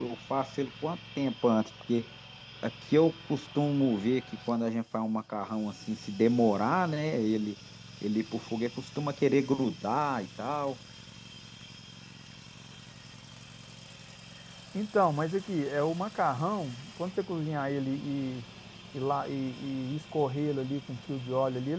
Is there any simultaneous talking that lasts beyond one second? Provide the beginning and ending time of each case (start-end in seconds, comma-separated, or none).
none